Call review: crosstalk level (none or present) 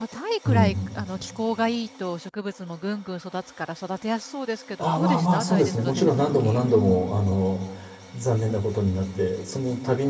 present